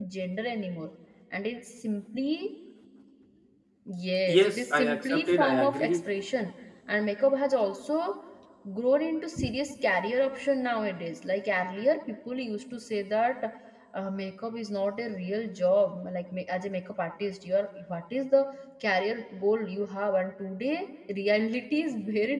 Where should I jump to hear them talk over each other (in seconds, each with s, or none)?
4.3 s